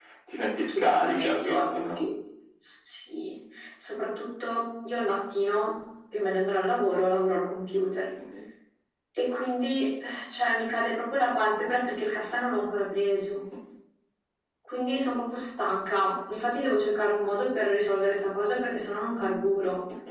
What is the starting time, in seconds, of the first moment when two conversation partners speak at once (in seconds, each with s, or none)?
0.7 s